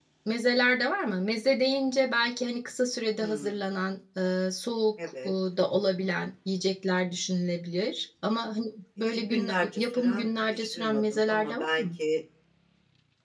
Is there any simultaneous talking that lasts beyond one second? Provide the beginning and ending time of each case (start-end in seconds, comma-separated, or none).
9.0-11.8